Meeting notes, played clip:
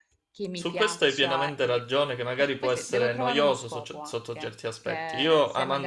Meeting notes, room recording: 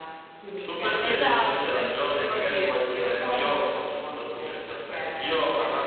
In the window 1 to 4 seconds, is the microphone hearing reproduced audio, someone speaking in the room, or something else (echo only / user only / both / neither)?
both